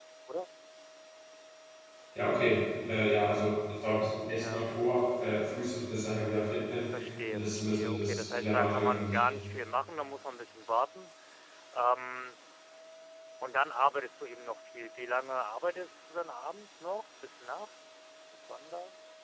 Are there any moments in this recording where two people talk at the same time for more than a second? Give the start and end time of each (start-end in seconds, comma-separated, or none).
7.3-9.2